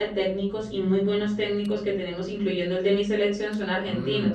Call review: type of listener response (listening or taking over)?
taking over